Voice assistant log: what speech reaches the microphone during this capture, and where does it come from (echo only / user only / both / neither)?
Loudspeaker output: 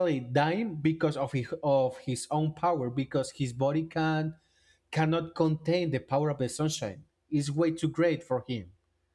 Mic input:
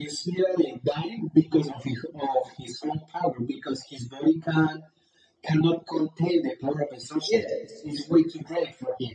both